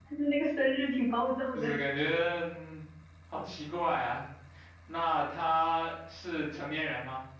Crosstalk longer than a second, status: none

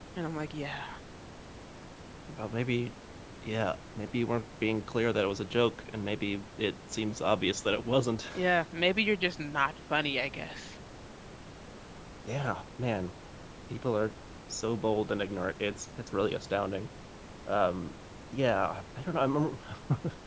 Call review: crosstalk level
none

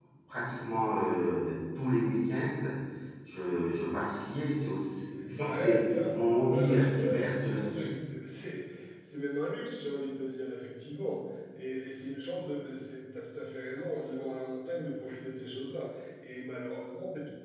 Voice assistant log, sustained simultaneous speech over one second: present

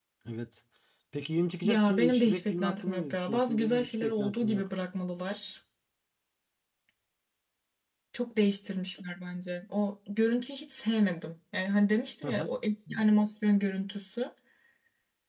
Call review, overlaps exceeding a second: present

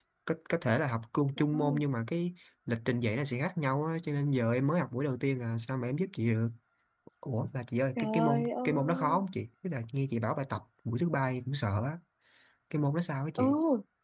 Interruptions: present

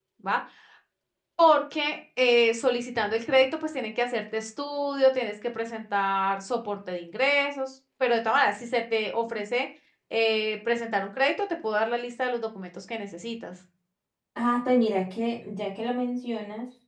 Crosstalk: none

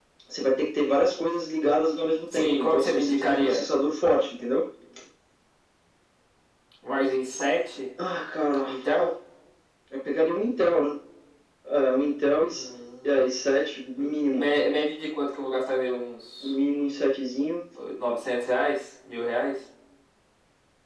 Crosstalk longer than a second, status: present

